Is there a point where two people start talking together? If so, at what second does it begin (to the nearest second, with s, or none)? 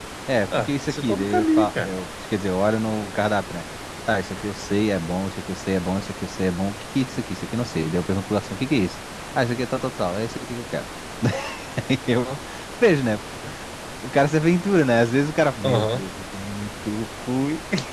1 s